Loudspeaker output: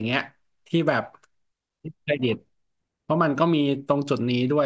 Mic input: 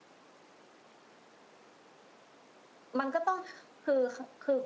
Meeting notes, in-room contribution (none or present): present